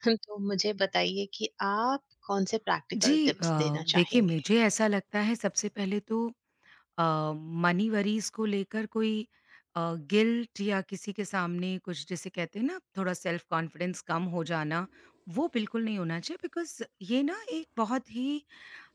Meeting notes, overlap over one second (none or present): present